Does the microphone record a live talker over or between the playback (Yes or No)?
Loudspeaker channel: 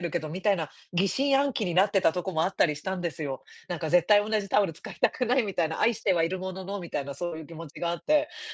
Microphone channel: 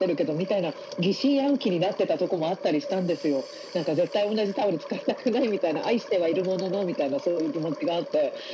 No